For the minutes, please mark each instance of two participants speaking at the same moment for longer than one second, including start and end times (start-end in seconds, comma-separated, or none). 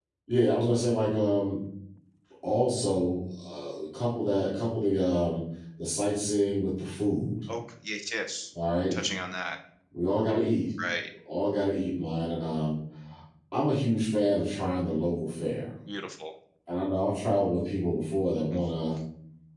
none